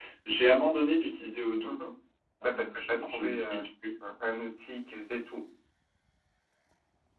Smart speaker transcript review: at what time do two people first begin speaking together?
2 s

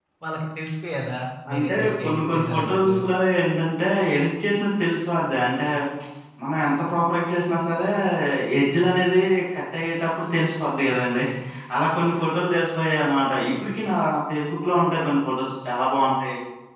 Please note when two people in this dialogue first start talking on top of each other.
2 s

